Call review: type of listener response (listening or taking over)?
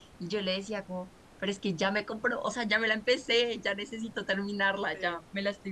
listening